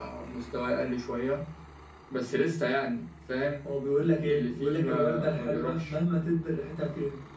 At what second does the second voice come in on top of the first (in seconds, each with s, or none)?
4.3 s